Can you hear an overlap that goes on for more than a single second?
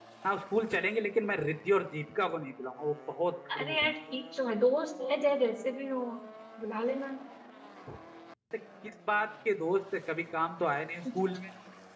No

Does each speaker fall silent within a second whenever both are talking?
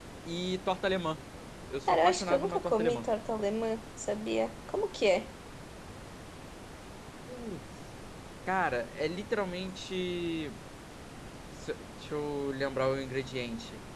No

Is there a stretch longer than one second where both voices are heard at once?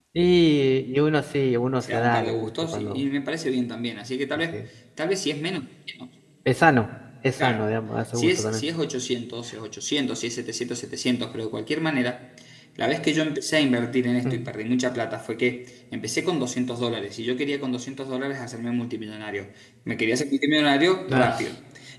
Yes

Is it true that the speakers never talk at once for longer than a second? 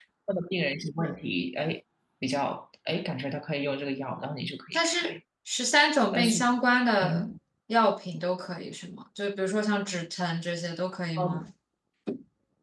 Yes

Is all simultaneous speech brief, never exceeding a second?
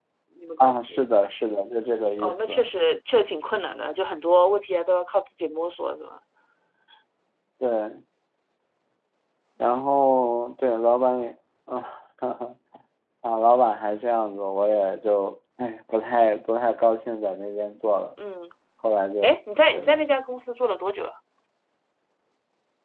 Yes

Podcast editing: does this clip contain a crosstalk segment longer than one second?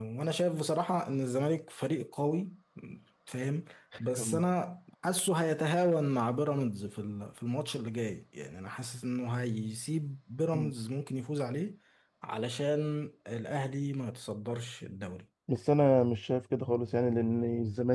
No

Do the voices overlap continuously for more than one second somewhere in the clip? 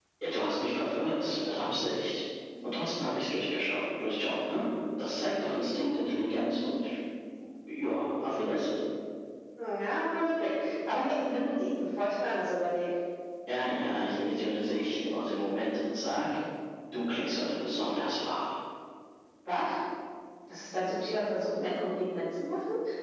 No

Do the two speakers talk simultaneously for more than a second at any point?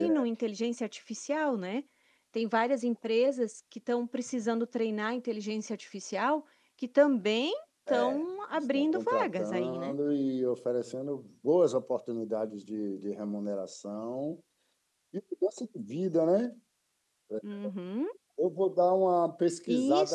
Yes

